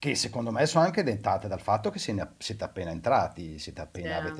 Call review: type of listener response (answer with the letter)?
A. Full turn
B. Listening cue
B